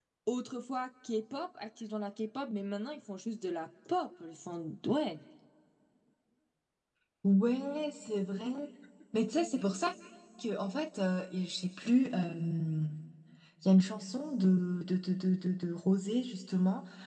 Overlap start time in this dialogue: none

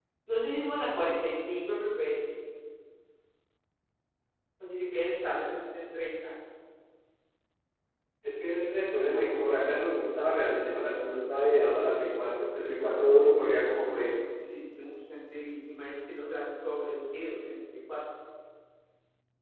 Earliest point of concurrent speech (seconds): none

